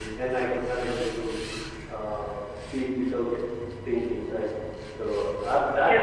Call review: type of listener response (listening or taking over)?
taking over